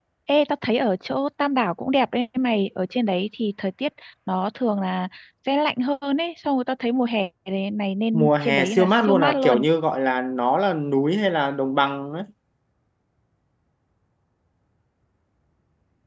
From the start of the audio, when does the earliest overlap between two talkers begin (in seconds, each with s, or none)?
8.1 s